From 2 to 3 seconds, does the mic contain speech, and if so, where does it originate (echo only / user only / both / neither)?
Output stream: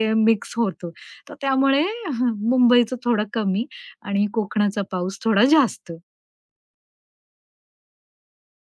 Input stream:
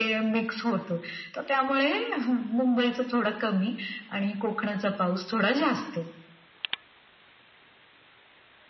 echo only